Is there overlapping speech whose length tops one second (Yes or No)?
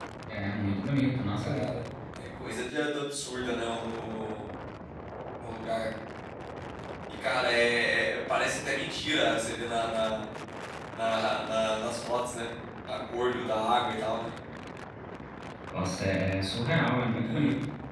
No